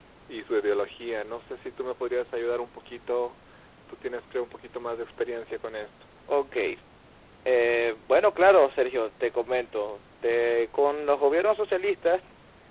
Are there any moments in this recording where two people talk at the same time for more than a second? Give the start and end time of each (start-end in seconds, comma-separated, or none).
none